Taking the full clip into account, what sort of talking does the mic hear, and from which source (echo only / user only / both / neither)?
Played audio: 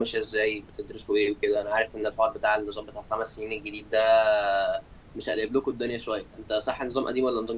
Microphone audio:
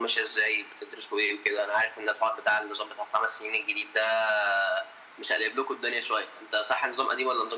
echo only